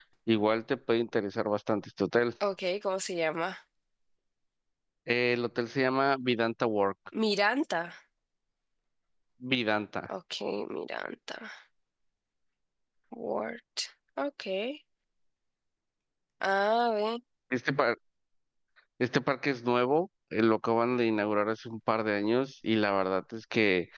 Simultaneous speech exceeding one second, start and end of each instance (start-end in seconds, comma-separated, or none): none